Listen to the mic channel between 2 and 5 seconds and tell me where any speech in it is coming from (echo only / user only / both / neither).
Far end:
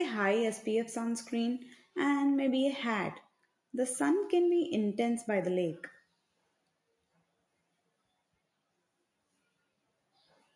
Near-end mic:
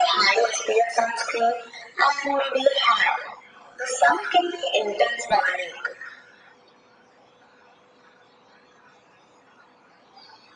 echo only